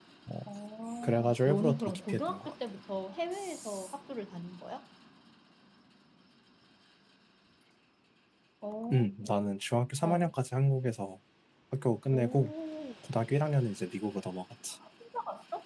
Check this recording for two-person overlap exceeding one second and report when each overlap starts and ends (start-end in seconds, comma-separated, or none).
1.0-2.5